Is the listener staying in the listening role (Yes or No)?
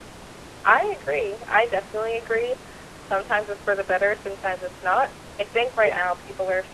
Yes